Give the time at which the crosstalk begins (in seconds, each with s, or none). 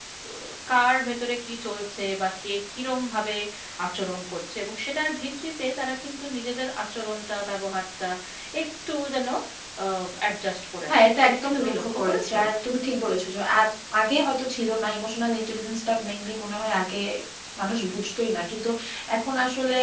10.9 s